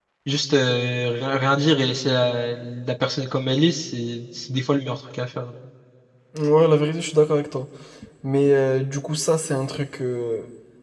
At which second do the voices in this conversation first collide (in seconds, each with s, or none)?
none